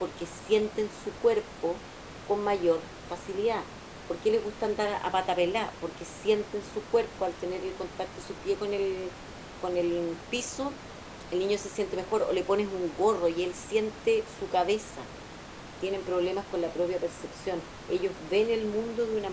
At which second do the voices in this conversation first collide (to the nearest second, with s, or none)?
none